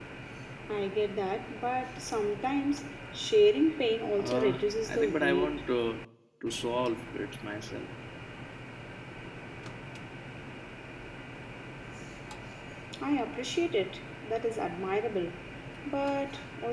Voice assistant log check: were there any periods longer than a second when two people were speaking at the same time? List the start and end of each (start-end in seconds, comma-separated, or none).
4.2-5.6